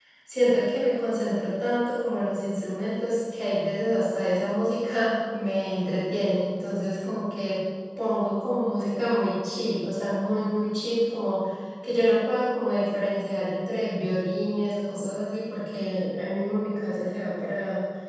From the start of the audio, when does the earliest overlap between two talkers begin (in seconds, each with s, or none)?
none